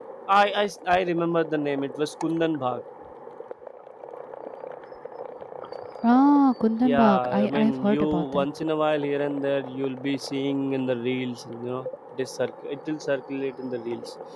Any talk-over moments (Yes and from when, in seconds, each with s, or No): Yes, from 6.8 s